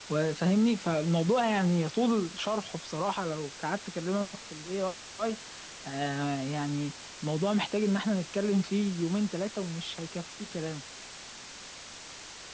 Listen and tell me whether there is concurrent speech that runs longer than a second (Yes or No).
No